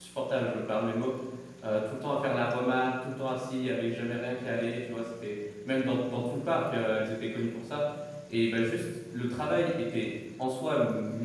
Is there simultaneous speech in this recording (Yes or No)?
No